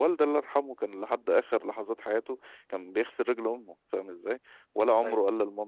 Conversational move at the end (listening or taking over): listening